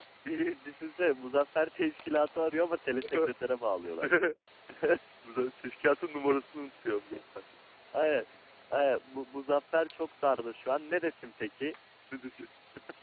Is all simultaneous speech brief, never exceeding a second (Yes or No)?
Yes